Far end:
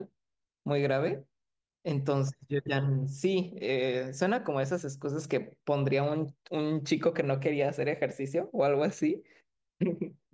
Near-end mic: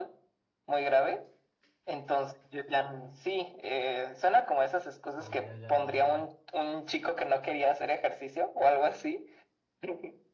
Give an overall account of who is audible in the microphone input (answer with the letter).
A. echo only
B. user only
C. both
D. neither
C